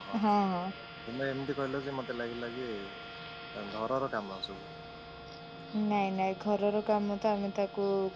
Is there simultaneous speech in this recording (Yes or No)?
No